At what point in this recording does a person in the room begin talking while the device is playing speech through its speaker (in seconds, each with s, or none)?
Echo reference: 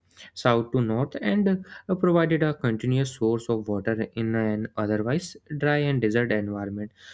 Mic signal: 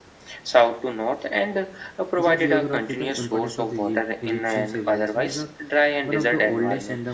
2.2 s